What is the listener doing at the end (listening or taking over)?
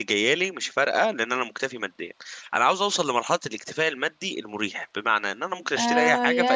taking over